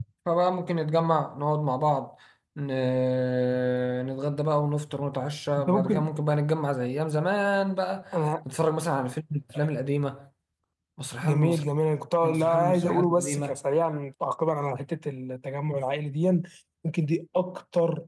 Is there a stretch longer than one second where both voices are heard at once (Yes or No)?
Yes